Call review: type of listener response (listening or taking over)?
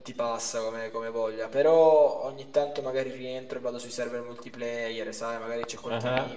listening